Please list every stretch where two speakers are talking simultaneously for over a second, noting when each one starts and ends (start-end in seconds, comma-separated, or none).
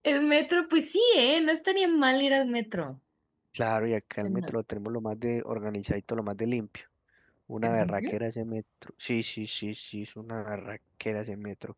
none